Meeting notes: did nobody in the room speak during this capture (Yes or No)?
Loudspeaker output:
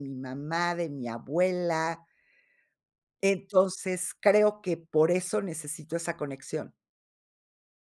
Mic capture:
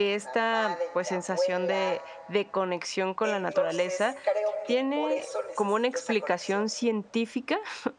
No